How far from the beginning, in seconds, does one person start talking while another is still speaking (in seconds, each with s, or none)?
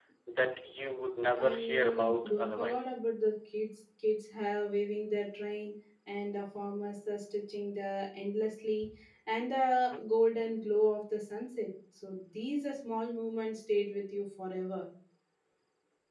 1.4 s